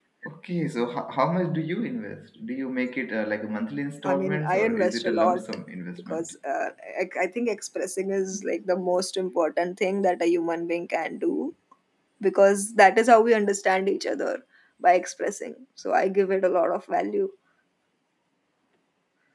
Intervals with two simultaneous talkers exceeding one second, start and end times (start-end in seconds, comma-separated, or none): 4.0-5.4